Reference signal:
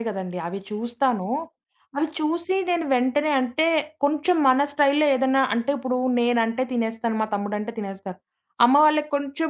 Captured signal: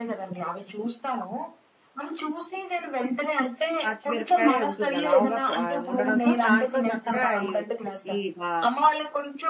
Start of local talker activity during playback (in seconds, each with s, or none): 3.8 s